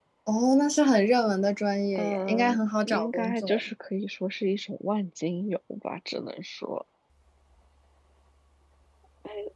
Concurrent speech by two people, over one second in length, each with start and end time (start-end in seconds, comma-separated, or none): 1.9-3.6